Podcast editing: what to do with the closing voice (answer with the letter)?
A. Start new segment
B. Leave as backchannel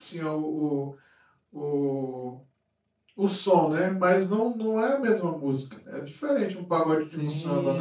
A